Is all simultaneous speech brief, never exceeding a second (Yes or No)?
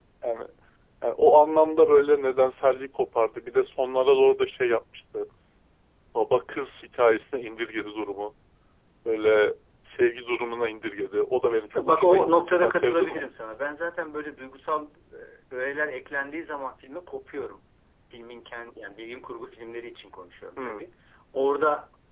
No